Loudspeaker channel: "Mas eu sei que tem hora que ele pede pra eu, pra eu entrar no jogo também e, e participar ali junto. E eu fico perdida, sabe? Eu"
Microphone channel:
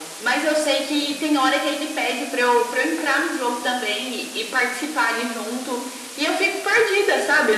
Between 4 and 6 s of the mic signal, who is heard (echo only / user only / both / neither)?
echo only